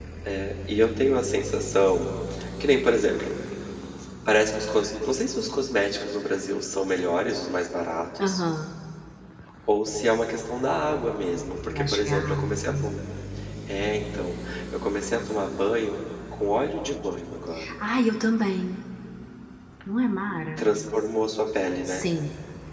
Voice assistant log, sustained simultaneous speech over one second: present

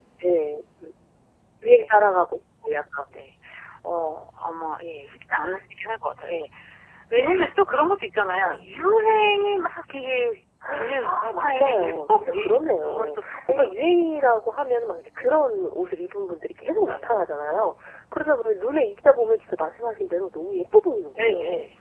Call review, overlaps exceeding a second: present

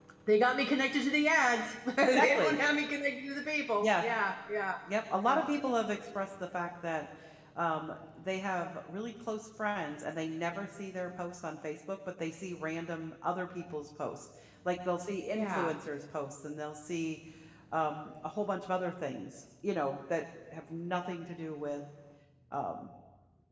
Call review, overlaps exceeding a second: none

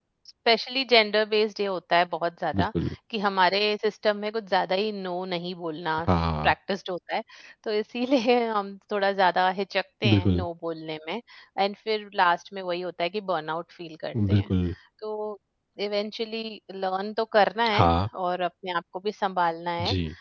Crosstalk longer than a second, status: none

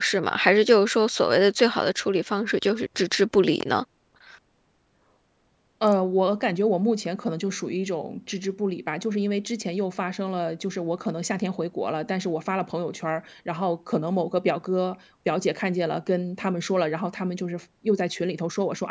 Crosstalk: none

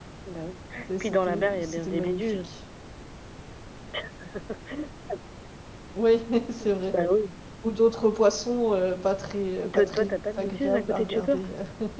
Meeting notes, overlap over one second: present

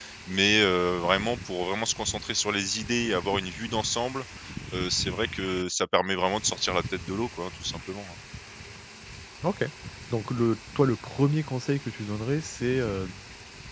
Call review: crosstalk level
none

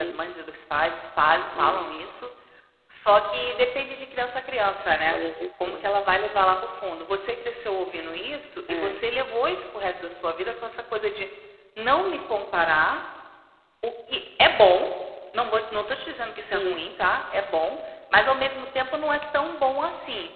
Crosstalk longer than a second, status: none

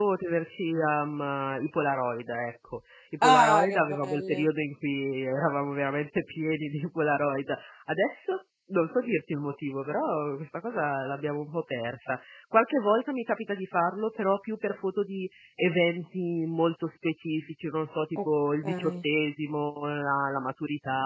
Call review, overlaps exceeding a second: present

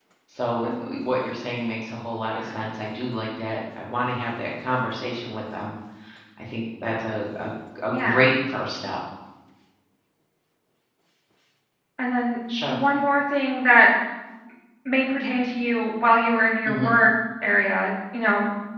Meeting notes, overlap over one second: none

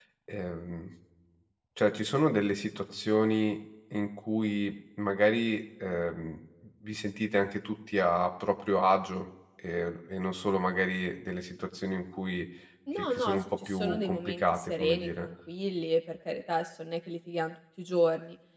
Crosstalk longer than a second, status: present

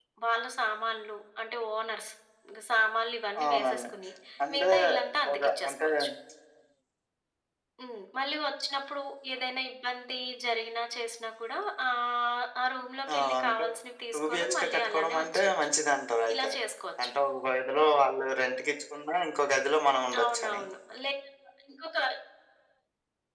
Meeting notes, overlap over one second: present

